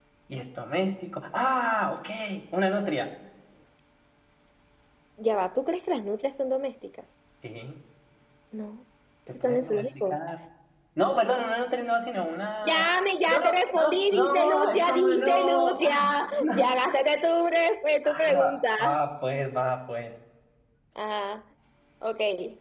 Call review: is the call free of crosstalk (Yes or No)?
No